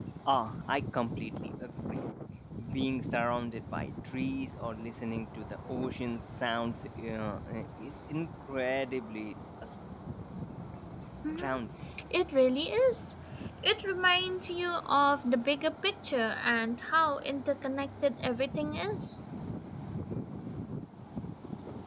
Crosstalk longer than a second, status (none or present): none